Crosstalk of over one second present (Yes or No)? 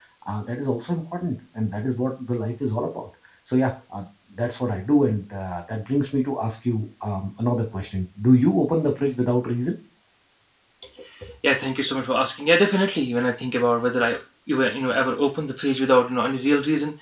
No